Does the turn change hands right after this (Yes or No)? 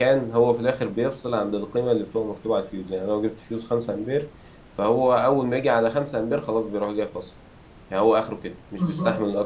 Yes